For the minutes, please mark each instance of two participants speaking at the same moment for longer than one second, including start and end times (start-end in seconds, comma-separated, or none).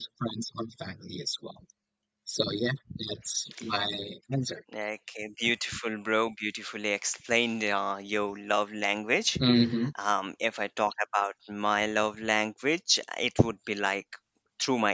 none